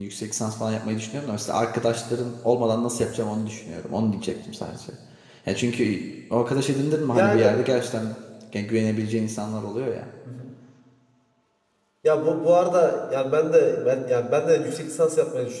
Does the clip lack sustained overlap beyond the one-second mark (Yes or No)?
Yes